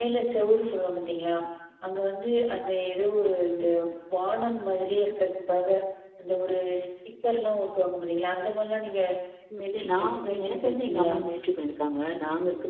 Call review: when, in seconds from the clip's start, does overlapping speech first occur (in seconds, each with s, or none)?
9.6 s